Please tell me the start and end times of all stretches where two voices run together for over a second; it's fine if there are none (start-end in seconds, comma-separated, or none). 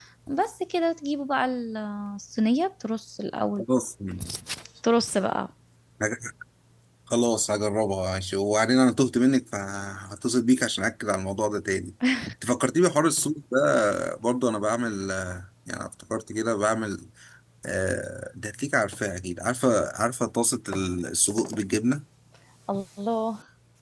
none